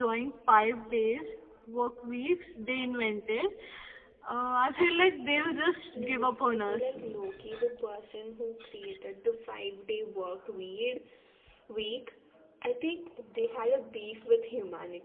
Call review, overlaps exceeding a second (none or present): present